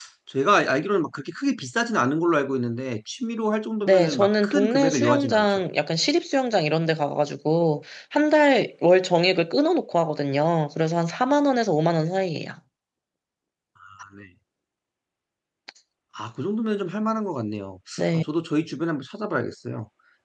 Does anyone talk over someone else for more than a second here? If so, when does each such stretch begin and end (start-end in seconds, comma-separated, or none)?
3.9-5.6